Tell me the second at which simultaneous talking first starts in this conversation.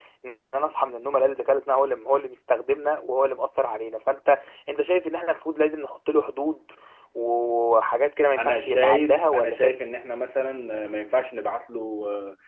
8.3 s

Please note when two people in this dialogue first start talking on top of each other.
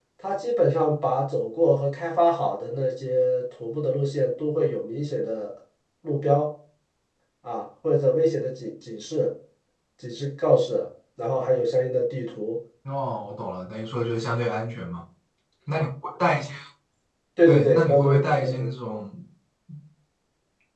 17.4 s

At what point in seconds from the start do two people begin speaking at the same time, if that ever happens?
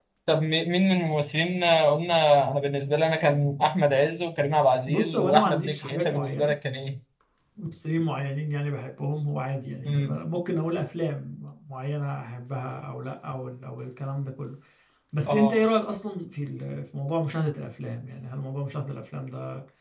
4.9 s

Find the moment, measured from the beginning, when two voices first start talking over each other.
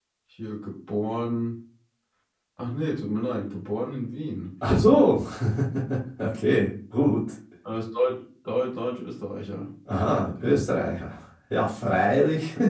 none

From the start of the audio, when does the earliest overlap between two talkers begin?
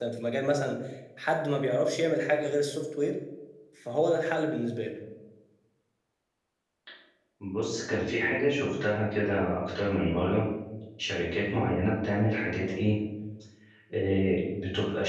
none

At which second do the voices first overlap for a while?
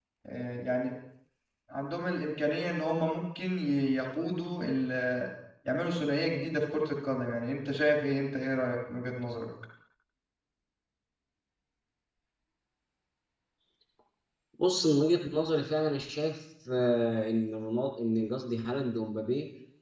none

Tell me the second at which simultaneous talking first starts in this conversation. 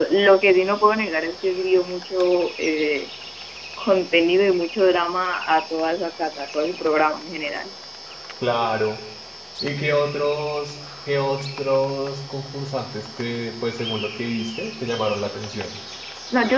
none

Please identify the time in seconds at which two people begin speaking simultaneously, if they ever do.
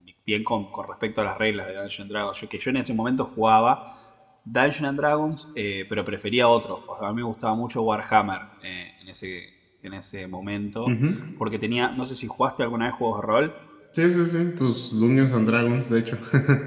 none

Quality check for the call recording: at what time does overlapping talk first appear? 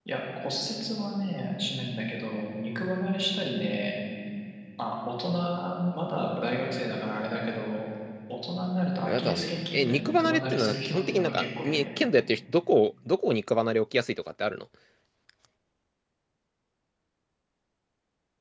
9.0 s

